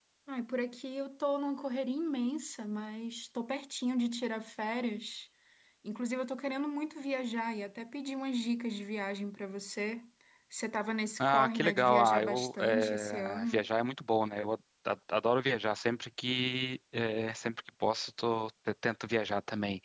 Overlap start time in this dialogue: 11 s

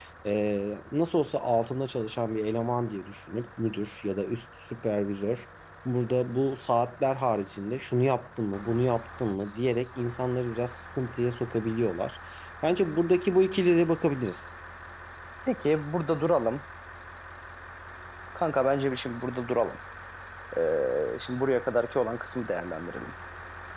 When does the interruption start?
none

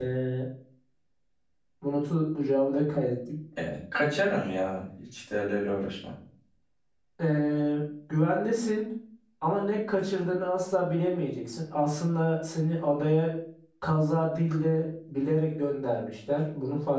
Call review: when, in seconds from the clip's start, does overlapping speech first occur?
none

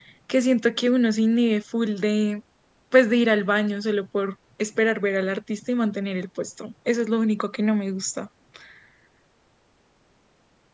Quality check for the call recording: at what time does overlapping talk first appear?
none

